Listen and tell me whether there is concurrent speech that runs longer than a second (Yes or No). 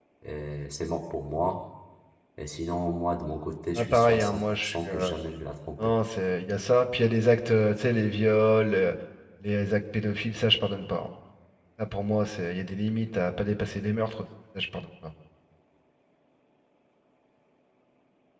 Yes